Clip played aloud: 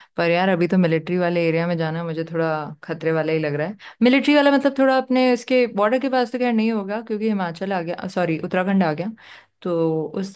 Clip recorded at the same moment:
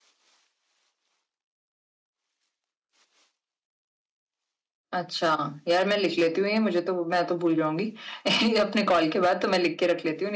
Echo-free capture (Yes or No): Yes